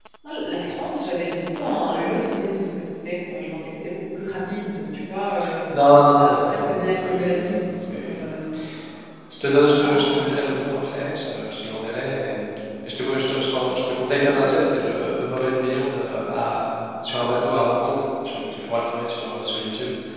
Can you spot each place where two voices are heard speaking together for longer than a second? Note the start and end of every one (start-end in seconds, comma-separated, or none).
6.2-7.5